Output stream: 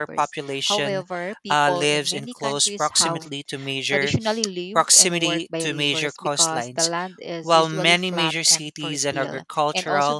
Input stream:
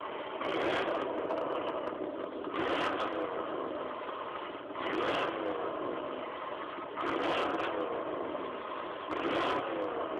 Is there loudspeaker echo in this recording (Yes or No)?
No